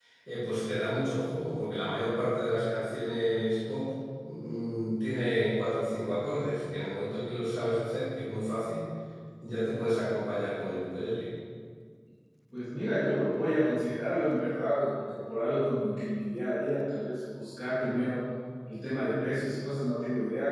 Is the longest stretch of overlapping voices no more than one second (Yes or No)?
Yes